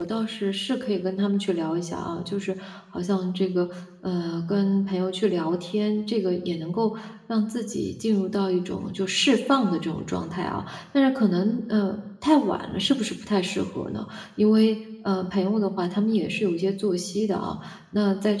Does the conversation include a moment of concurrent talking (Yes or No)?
No